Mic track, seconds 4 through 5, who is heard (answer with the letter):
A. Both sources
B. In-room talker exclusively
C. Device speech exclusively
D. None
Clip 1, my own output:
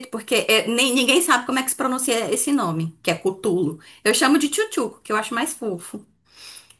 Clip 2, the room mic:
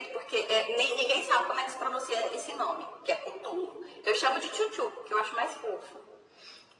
C